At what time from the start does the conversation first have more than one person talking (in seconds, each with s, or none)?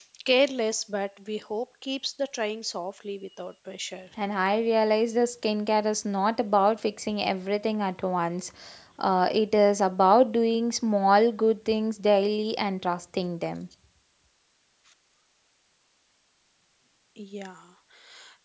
none